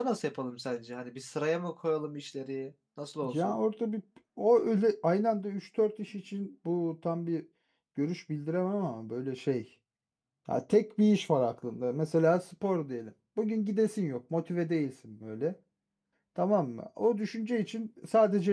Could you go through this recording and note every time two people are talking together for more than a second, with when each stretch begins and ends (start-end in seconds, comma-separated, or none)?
none